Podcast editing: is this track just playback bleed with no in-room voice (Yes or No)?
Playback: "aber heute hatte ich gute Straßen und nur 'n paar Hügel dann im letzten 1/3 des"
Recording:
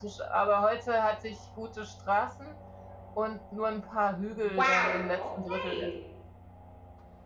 No